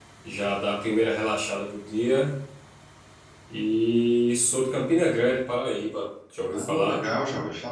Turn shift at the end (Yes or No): Yes